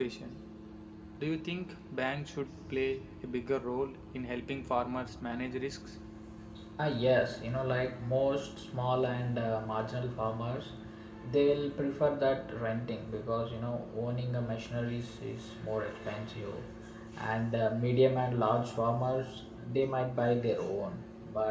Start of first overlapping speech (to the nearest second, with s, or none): none